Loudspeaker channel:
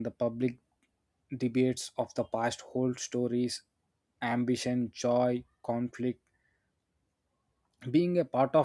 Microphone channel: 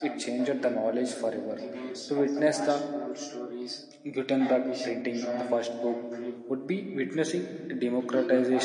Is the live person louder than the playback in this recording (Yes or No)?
Yes